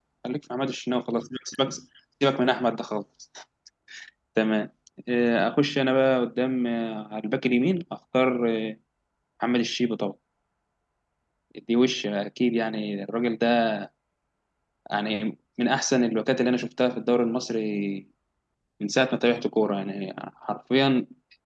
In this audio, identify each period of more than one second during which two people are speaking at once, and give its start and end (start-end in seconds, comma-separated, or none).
none